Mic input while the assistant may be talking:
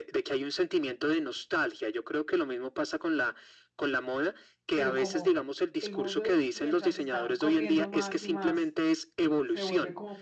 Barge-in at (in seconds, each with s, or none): 4.7 s